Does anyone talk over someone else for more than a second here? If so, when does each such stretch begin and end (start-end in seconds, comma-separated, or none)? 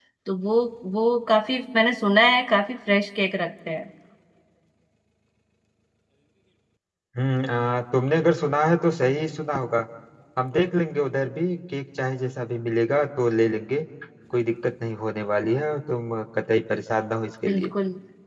none